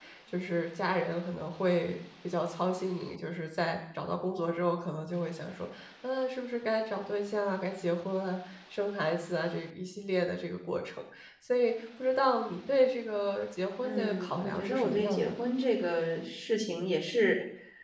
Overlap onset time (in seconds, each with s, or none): 13.8 s